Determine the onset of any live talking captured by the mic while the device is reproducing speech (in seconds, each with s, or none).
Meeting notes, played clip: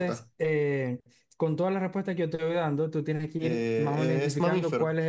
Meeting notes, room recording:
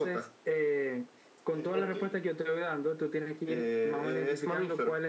1.5 s